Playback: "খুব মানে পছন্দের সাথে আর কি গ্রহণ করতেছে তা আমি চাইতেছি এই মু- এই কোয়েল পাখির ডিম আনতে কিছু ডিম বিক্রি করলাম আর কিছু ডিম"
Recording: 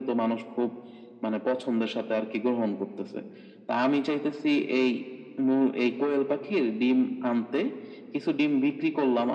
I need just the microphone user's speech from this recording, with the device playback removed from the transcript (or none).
none